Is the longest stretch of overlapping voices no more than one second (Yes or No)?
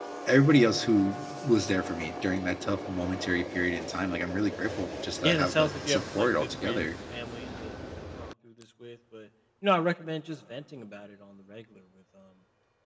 No